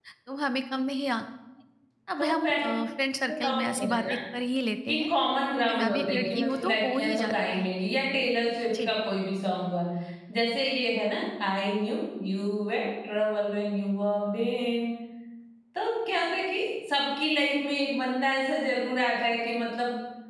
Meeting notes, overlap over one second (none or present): present